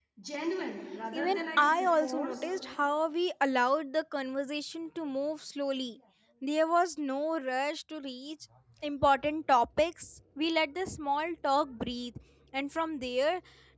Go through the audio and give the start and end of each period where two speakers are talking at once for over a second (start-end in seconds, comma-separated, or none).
1.1-2.5